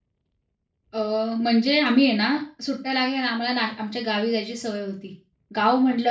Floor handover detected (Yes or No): No